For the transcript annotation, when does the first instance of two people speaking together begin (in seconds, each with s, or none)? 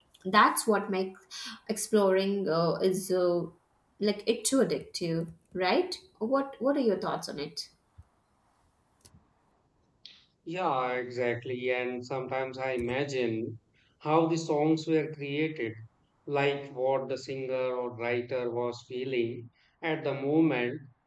none